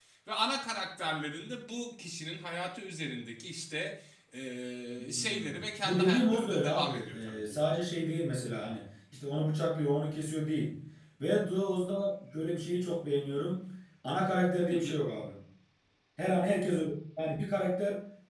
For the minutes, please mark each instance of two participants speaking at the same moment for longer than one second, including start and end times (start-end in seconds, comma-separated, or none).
5.0-7.7